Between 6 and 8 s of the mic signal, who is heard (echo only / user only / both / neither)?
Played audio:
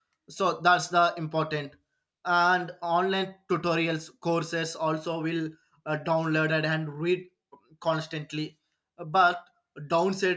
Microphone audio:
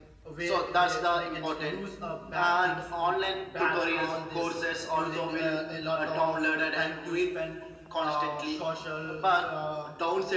both